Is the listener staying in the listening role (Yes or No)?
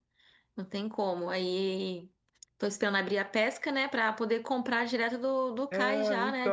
No